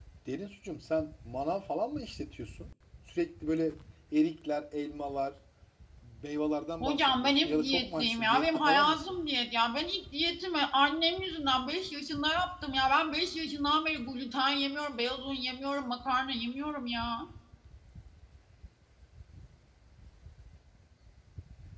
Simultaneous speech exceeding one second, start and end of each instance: 6.8-9.2

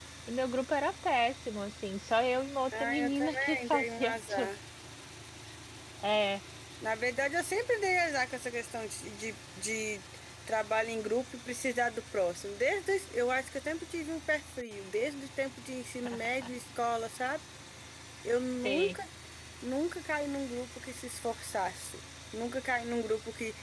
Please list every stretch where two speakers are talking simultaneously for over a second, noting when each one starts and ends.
2.7-4.5

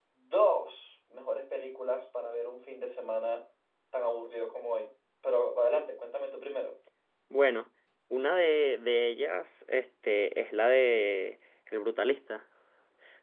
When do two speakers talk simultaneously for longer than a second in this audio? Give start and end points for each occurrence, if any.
none

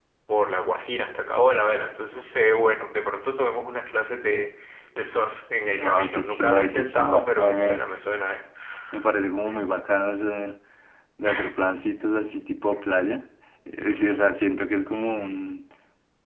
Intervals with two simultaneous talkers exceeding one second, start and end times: 5.7-7.9

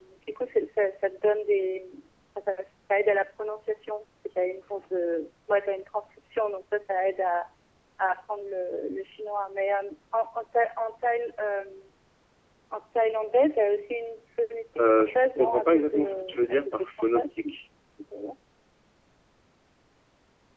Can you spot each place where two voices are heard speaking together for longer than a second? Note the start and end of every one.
14.8-17.5

